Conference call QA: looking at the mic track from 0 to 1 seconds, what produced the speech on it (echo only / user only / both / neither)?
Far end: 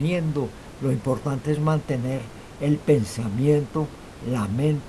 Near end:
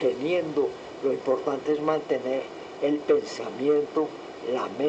echo only